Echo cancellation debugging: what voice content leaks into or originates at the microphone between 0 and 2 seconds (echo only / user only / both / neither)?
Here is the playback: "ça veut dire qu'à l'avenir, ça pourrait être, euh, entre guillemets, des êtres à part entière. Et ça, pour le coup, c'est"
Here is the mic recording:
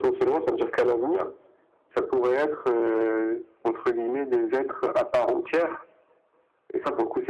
echo only